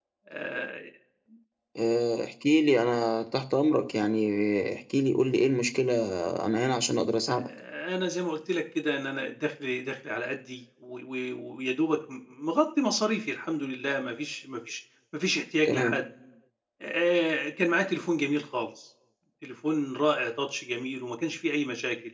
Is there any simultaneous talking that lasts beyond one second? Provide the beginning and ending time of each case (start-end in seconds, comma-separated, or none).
none